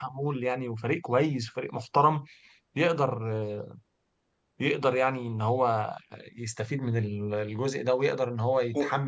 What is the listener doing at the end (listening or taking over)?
listening